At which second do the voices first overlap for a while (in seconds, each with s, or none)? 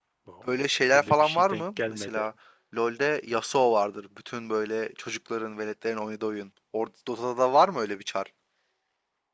0.9 s